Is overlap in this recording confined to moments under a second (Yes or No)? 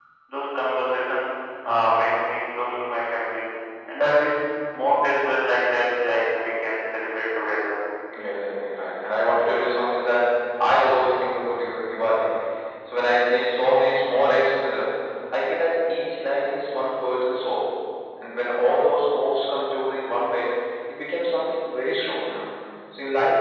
Yes